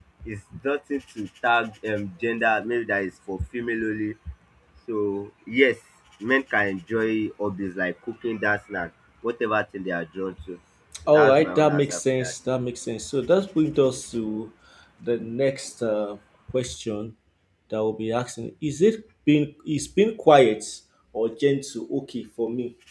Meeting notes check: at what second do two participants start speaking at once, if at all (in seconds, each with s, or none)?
11.1 s